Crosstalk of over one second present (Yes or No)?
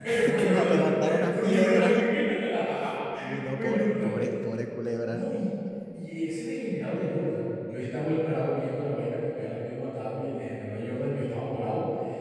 Yes